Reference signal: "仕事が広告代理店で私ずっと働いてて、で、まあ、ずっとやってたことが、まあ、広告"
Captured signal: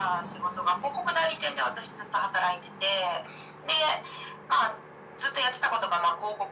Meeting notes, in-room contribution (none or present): none